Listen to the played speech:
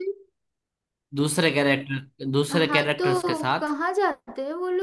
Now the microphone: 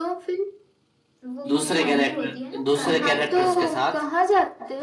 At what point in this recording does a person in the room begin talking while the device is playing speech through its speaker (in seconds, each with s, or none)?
1.2 s